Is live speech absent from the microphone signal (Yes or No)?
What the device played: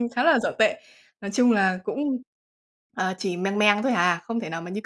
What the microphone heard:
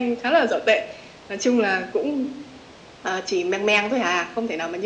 Yes